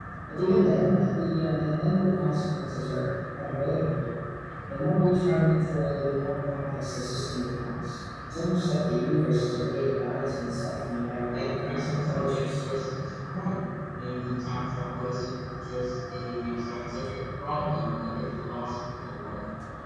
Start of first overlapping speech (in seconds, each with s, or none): 11.3 s